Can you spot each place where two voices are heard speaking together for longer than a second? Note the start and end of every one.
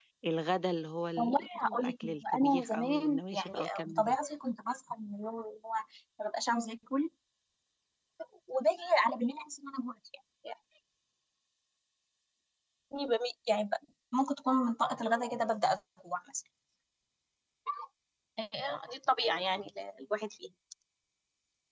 1.2-4.1

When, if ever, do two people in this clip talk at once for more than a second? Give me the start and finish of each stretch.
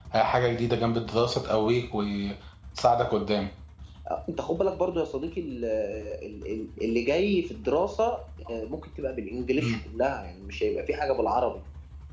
none

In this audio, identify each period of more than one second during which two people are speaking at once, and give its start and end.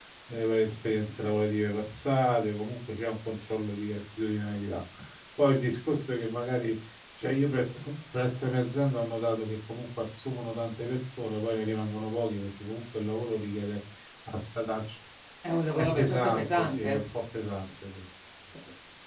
15.8-17.0

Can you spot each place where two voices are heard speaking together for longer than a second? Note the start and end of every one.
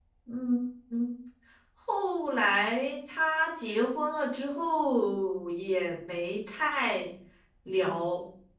none

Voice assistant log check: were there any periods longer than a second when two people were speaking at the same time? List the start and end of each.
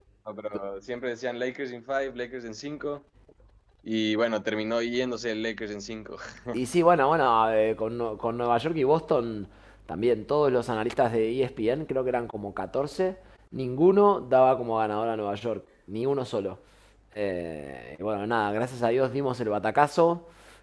none

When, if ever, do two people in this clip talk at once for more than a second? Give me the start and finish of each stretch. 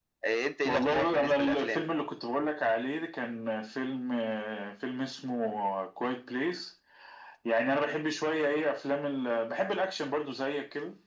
0.6-1.8

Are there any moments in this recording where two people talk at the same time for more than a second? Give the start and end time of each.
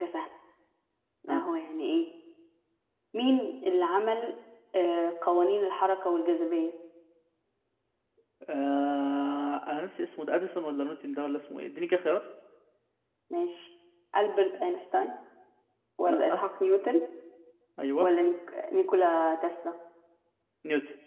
none

